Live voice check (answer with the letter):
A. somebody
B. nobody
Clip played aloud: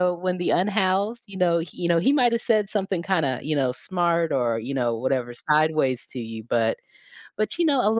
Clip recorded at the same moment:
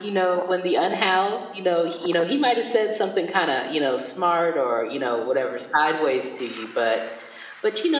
B